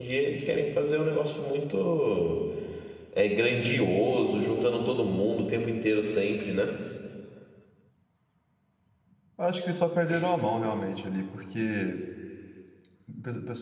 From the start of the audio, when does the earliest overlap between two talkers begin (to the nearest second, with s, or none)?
none